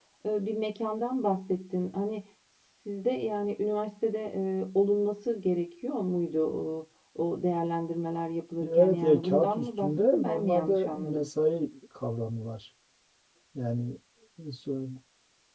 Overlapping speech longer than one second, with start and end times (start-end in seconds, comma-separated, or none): 8.6-11.3